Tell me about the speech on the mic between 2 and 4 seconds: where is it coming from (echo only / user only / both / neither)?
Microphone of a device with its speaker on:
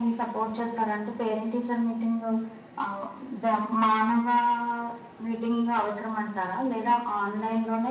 echo only